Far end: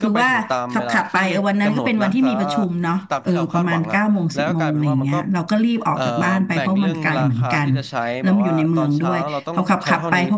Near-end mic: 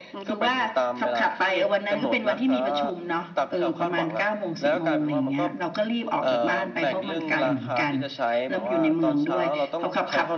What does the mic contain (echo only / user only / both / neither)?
echo only